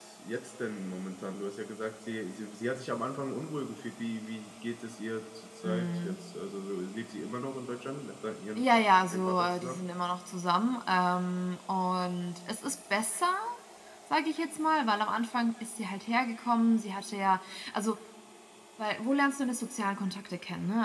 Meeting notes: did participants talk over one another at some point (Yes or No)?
Yes